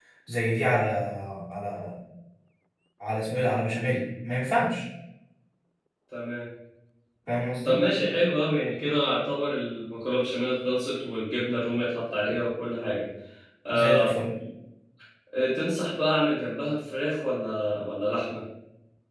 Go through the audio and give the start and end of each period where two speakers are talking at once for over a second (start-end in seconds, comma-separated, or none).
none